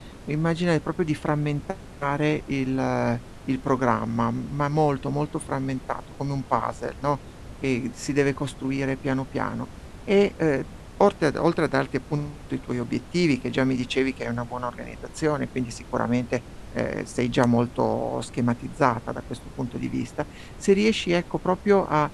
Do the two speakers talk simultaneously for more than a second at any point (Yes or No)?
No